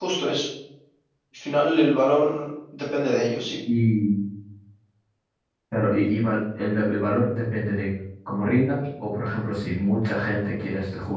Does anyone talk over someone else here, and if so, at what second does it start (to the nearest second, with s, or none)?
none